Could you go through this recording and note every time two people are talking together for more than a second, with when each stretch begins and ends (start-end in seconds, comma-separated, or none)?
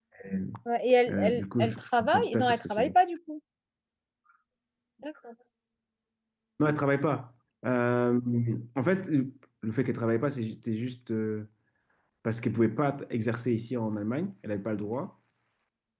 1.1-2.9